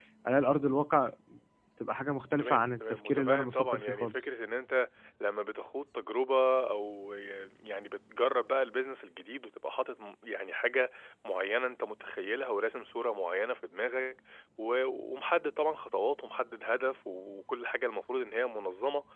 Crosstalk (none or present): present